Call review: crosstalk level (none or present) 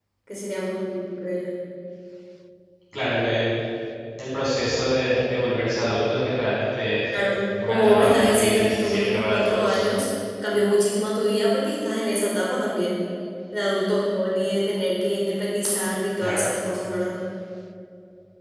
present